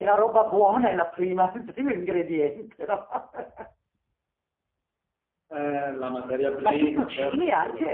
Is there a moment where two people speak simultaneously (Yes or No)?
Yes